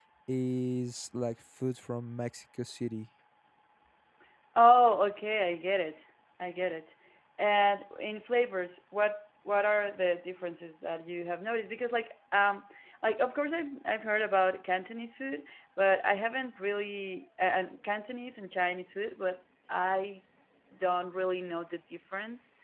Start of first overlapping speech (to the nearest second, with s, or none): none